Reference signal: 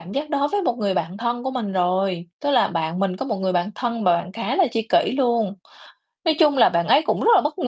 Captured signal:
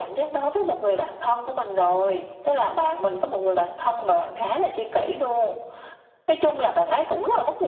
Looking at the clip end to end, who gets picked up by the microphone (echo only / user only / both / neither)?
echo only